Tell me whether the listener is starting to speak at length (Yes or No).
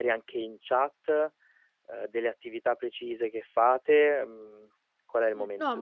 Yes